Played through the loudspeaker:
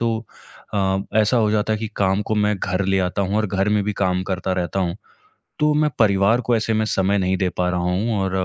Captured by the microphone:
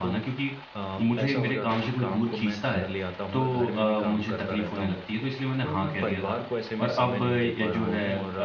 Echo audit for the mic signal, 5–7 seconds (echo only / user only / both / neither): both